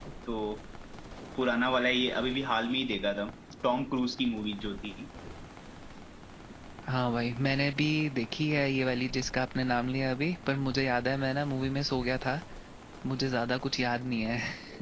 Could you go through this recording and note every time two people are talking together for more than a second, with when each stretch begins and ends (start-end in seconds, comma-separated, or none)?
none